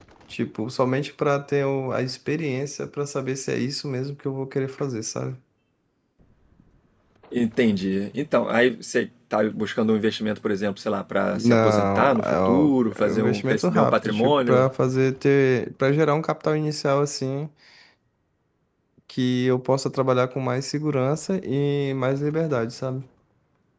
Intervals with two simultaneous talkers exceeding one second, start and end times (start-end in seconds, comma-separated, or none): 11.3-14.7